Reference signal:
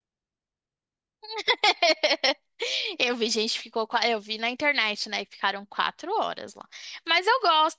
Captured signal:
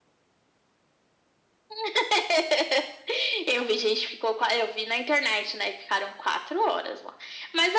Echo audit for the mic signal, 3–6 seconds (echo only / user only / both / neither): echo only